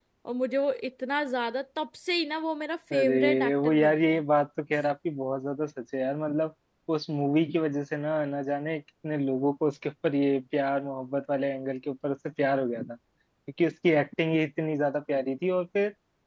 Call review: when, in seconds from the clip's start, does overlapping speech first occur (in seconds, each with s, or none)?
2.9 s